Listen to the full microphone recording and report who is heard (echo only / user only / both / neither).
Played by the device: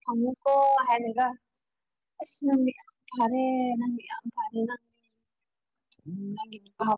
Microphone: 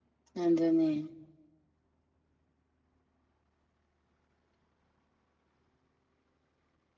user only